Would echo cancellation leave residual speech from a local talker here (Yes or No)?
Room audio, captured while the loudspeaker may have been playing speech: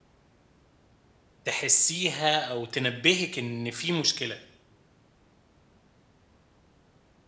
Yes